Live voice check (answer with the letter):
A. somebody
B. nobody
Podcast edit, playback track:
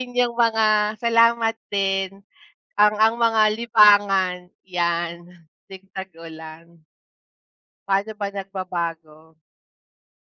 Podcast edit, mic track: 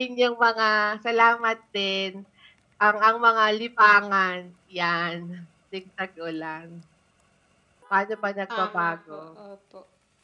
A